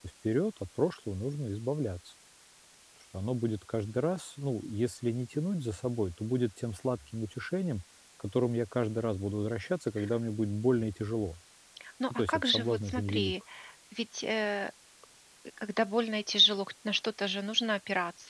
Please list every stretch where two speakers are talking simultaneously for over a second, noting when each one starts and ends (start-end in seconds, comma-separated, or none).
12.1-13.3